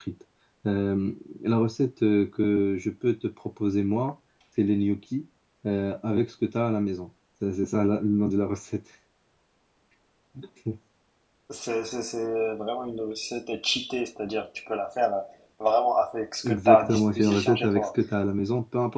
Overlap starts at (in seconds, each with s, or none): 16.4 s